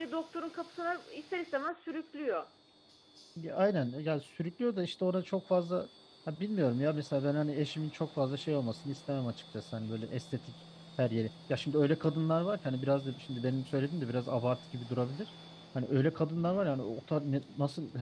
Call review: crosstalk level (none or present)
none